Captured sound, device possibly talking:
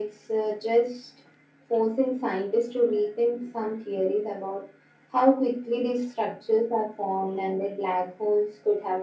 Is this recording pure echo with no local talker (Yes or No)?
Yes